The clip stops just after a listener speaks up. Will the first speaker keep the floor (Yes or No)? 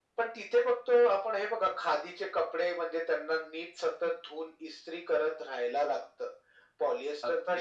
Yes